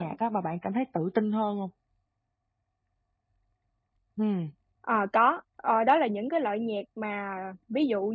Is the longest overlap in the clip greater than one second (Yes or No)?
No